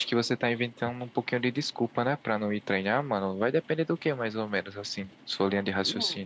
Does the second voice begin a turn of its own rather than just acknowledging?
Yes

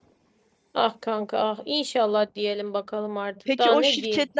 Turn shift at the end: Yes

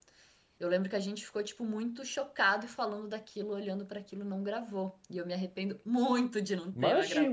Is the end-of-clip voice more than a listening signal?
Yes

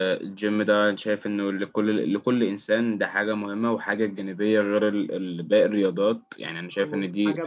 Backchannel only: No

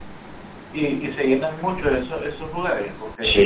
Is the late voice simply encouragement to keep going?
No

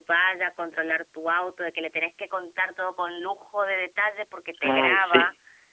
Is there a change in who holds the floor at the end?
No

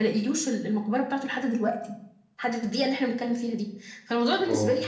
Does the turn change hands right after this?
No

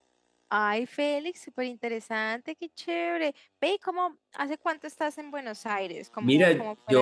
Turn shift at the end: Yes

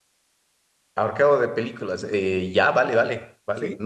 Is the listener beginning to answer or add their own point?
No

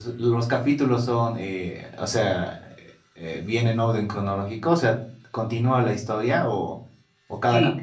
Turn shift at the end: Yes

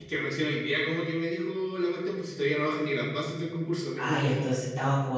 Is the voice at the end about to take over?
Yes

